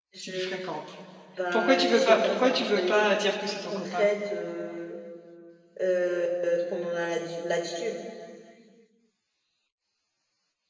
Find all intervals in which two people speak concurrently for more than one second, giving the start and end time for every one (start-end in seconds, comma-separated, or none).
1.5-4.1